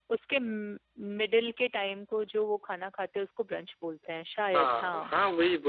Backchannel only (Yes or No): No